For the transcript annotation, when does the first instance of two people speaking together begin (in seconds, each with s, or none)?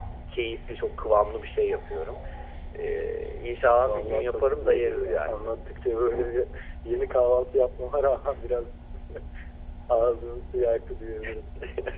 3.8 s